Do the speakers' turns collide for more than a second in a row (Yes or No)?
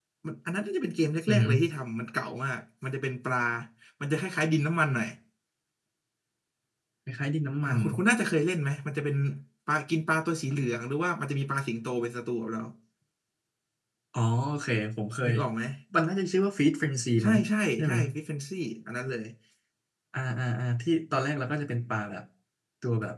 No